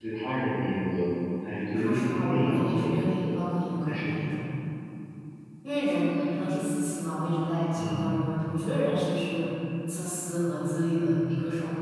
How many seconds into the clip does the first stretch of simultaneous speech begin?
1.7 s

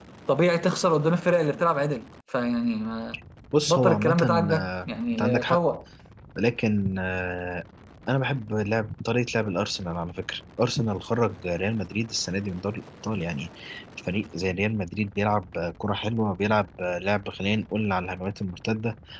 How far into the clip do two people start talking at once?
3.7 s

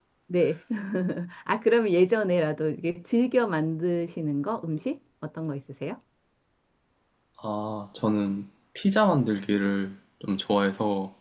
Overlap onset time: none

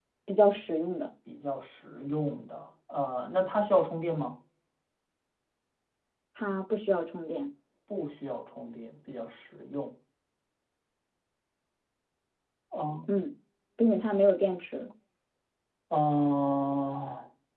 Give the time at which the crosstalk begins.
none

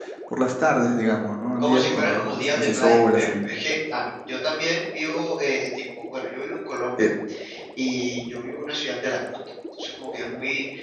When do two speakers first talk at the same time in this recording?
1.6 s

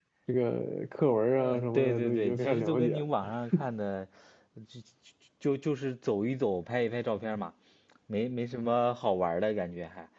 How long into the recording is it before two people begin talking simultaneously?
1.4 s

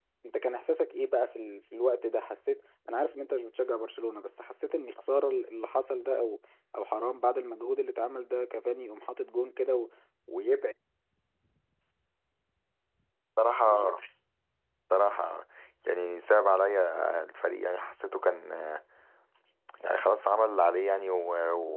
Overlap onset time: none

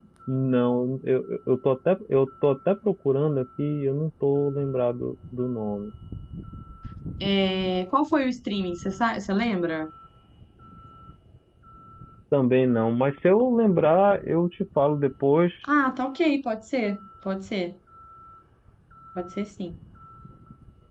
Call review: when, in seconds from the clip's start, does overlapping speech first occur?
none

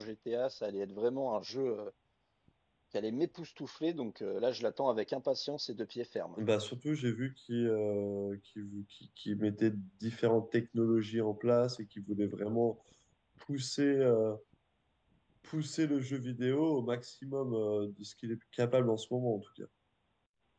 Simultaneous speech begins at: none

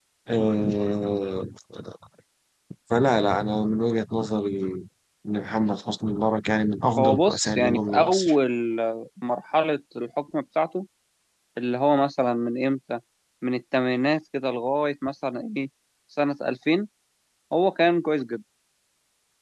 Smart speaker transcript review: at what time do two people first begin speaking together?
7.0 s

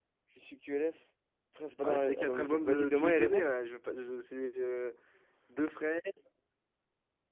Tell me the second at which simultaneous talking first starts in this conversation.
1.8 s

